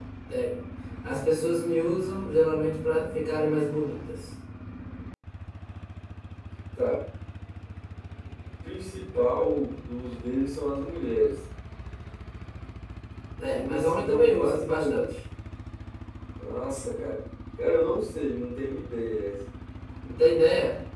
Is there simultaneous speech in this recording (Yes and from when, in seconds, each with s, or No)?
Yes, from 13.5 s